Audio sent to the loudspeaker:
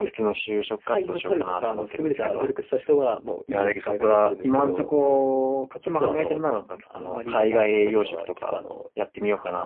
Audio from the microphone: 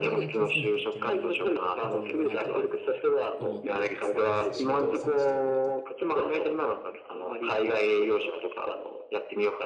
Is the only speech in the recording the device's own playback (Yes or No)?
No